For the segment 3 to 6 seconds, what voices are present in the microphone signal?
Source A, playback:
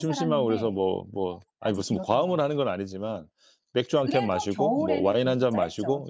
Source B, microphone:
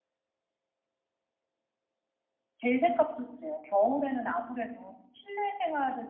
user only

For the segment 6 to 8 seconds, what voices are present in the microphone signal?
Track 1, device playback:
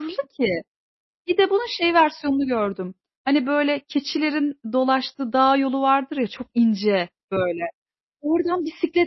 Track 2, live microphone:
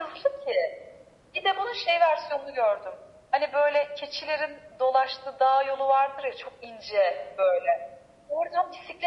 echo only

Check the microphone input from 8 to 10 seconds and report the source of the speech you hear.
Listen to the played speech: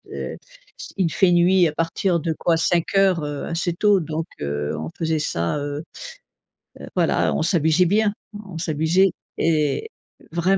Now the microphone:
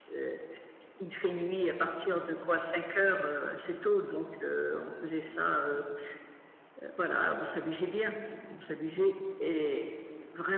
echo only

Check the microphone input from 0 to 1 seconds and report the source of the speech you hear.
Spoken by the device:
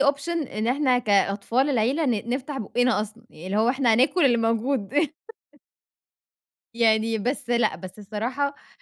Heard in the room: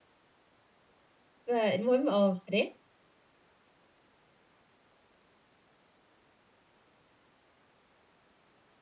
neither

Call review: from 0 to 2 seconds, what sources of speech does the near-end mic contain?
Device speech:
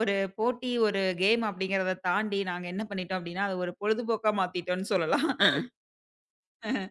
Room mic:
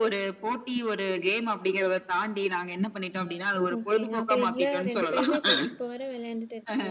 echo only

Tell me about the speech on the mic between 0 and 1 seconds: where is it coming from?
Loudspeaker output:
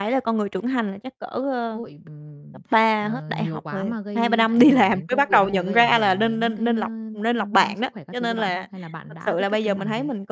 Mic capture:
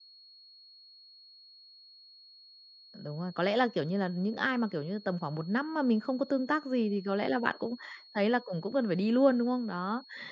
neither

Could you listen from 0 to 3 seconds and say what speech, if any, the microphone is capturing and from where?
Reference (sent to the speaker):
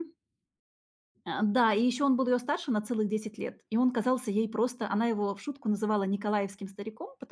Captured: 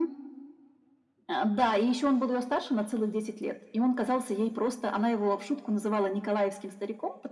echo only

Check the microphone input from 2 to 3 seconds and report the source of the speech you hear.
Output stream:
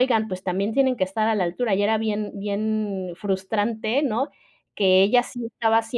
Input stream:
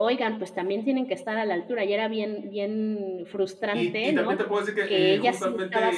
echo only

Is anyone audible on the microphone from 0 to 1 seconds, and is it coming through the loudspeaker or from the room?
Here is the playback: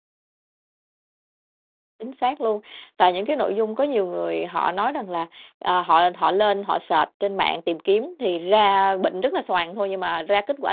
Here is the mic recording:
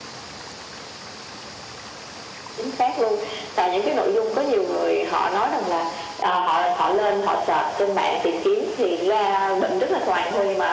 neither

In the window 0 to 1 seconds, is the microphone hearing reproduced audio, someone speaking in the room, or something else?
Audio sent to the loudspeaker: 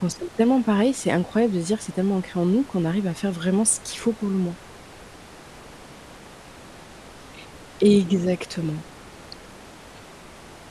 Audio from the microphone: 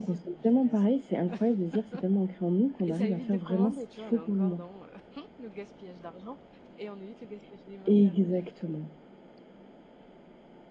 both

